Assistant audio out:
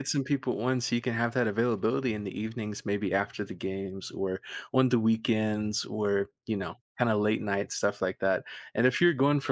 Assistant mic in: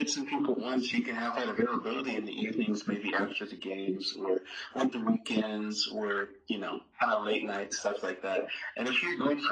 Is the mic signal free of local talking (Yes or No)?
Yes